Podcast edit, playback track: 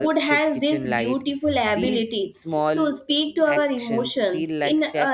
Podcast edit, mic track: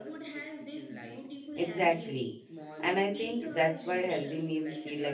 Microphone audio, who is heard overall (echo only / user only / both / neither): both